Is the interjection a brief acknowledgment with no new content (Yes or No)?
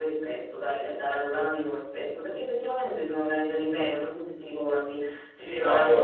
No